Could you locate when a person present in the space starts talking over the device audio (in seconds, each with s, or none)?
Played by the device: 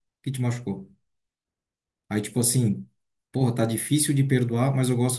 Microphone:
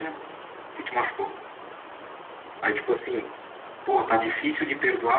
none